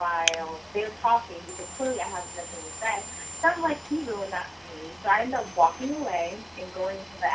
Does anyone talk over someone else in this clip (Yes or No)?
No